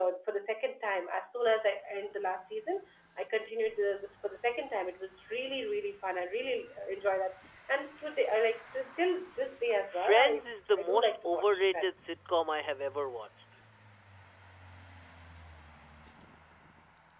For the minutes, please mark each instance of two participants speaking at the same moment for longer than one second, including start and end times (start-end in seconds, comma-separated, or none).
9.9-11.9